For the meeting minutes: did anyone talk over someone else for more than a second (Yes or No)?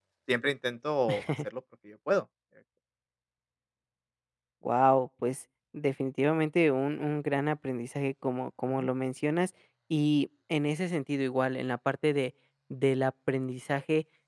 No